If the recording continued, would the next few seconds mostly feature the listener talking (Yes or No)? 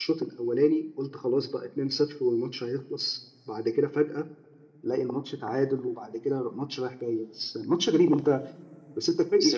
Yes